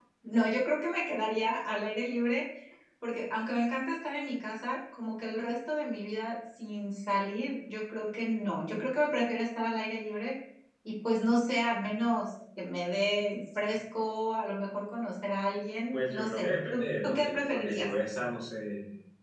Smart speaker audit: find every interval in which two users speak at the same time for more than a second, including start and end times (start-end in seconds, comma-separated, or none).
15.9-17.9